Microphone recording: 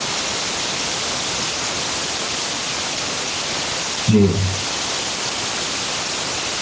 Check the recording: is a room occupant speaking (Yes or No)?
Yes